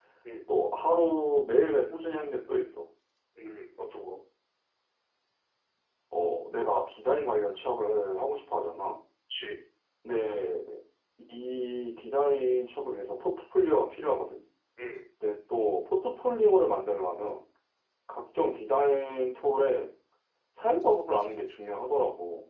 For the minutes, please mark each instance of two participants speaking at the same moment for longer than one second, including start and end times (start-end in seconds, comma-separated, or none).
none